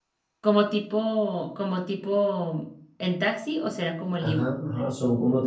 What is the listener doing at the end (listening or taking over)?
taking over